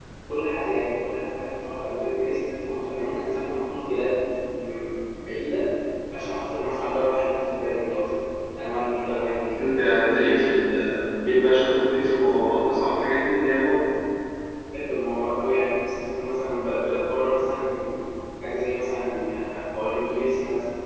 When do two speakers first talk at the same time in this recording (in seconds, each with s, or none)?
none